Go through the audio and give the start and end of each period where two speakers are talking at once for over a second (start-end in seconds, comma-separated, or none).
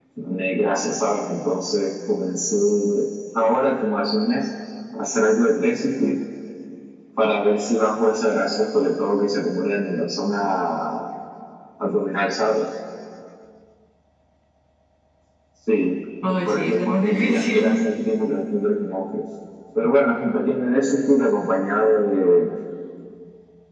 16.3-17.9